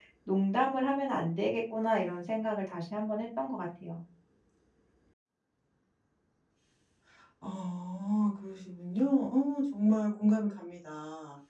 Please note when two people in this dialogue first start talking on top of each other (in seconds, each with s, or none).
none